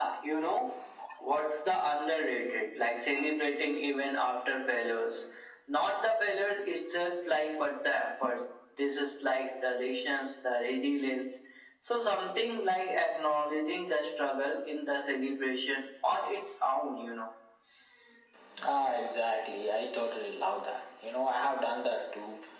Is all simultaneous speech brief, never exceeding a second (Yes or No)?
Yes